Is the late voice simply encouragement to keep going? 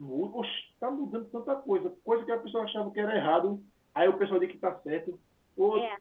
Yes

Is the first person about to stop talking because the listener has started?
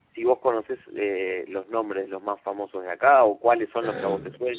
Yes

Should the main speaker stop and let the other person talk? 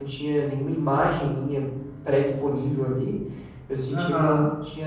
No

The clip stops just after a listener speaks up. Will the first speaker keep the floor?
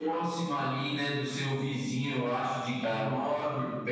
Yes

